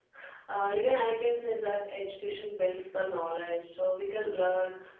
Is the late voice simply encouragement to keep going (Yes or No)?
Yes